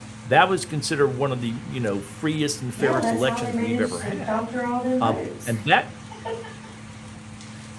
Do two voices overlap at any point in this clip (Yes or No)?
Yes